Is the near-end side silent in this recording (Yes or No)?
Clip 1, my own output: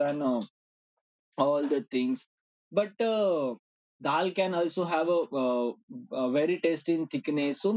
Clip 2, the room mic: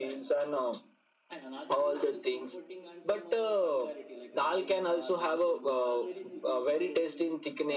No